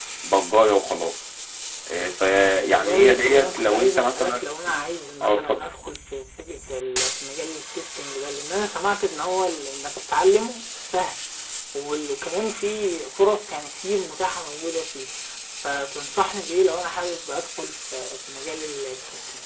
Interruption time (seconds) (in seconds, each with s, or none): 2.7 s